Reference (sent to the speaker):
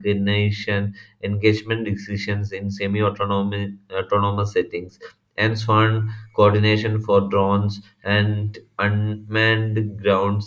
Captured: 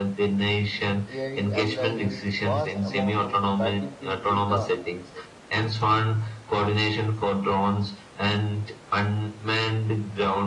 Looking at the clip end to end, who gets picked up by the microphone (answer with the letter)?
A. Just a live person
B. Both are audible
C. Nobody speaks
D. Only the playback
B